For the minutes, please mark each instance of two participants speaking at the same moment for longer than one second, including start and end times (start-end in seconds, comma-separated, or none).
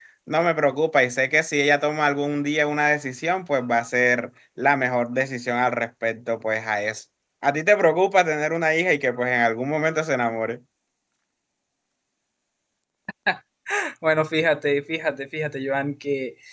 none